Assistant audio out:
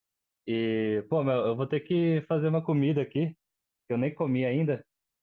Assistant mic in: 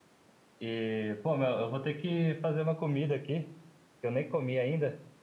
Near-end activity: none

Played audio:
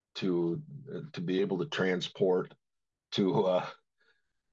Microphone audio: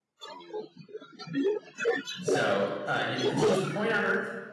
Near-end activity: present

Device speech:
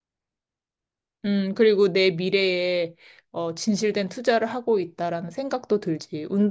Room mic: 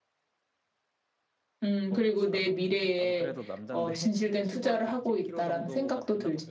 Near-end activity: present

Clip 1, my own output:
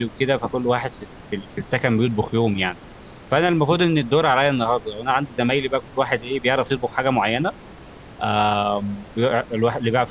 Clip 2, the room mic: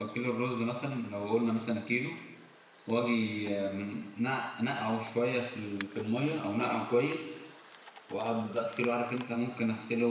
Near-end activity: present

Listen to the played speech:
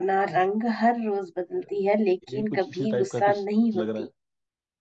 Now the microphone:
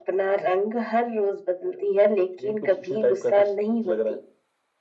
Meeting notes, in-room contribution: none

